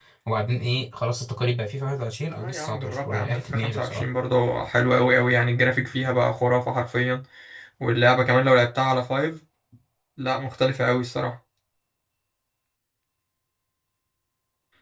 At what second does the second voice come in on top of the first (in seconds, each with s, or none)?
2.4 s